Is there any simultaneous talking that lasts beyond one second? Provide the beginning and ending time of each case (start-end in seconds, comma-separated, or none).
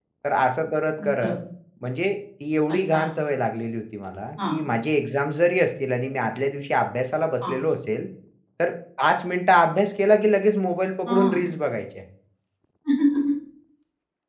none